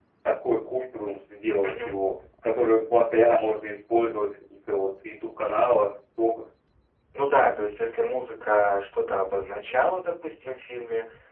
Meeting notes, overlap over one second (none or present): none